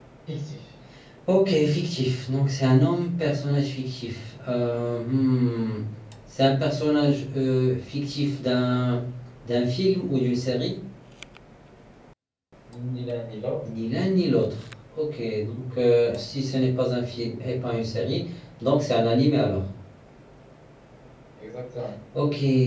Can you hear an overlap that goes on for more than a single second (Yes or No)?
No